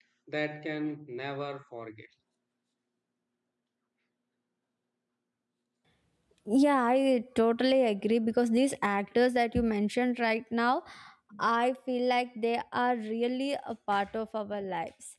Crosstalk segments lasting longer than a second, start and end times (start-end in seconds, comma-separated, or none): none